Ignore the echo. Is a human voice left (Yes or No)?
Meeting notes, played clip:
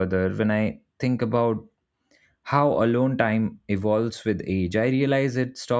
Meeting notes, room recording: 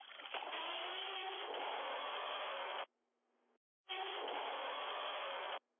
No